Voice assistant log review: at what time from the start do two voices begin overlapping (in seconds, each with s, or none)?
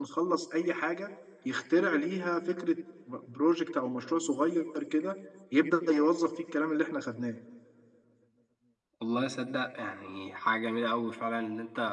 none